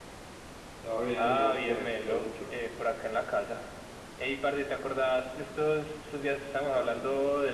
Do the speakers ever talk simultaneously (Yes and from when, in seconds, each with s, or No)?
Yes, from 1.2 s